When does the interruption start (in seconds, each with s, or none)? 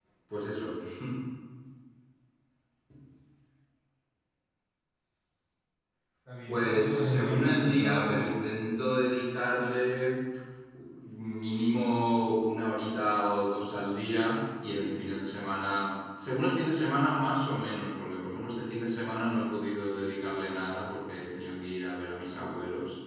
6.5 s